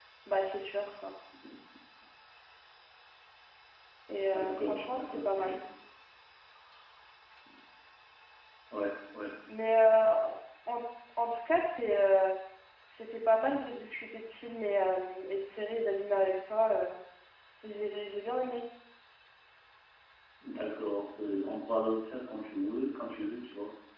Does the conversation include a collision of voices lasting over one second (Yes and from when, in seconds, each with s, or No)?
Yes, from 4.3 s